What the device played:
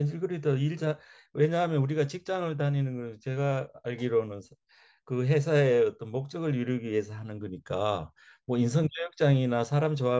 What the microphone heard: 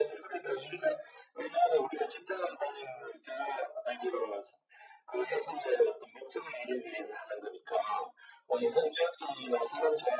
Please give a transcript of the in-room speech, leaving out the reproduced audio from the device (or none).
none